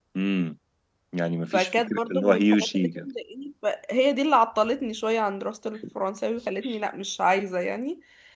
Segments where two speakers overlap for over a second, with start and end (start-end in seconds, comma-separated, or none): 1.5-3.1